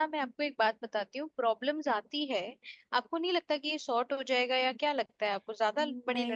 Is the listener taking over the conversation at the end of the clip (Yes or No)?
Yes